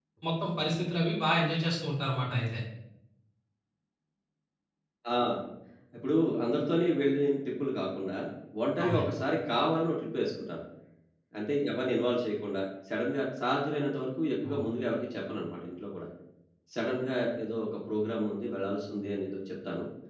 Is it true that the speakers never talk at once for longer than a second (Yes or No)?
Yes